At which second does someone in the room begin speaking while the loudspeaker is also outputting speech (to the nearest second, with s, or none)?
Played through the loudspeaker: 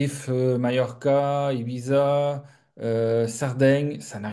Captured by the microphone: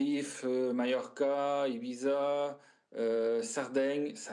none